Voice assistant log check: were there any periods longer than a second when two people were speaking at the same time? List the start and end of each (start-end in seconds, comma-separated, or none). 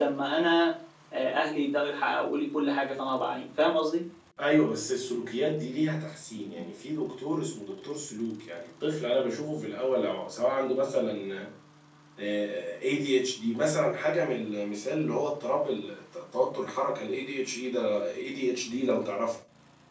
none